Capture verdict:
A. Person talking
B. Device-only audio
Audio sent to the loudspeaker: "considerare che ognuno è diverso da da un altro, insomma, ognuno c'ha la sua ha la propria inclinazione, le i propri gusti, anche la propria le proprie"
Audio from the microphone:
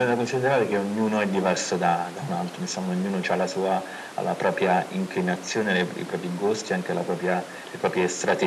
B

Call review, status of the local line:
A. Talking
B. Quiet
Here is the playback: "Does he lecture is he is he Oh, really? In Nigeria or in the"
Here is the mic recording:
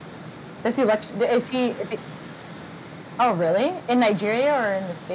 B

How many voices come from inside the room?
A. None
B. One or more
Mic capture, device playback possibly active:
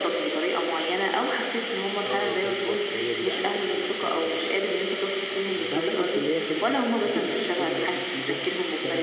B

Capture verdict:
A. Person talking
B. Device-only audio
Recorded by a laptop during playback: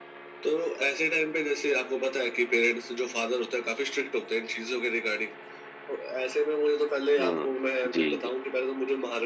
A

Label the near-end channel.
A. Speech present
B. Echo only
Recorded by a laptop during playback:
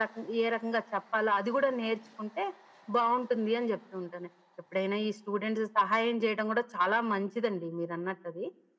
B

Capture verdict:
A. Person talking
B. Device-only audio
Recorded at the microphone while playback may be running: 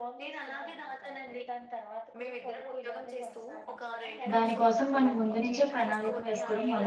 A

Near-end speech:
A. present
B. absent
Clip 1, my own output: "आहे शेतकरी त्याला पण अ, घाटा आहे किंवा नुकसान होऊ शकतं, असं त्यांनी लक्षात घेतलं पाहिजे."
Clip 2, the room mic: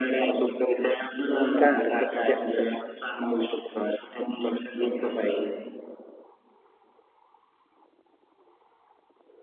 A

